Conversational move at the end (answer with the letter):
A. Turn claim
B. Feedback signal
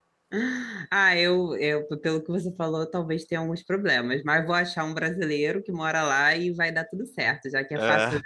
B